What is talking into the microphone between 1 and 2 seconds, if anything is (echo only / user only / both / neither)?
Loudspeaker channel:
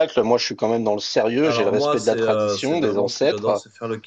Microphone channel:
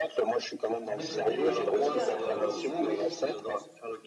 both